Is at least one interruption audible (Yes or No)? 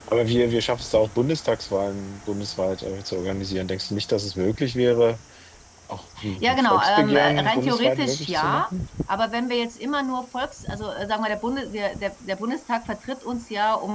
Yes